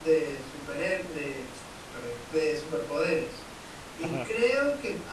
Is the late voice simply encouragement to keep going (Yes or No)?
Yes